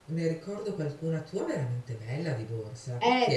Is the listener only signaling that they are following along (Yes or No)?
No